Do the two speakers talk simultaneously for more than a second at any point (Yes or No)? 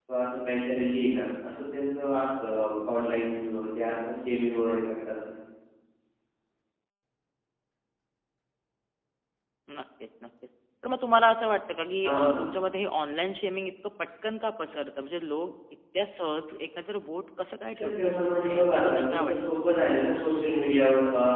Yes